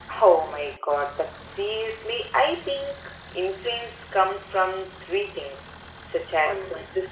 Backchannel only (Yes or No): Yes